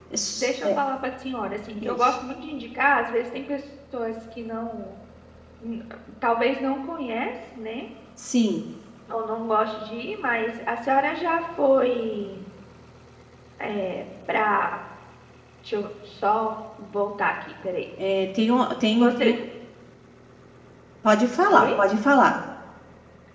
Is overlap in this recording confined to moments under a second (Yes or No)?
Yes